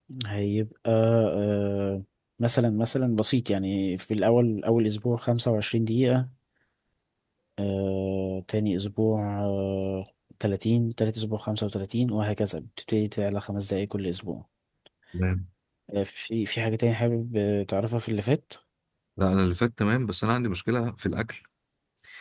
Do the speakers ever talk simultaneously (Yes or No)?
No